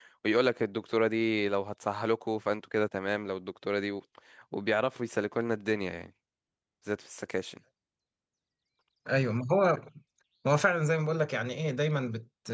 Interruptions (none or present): none